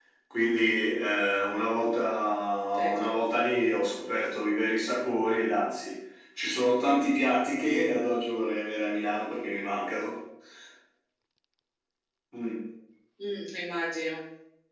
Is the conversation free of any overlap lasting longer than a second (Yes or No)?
Yes